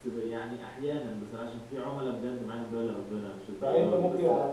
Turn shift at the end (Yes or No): Yes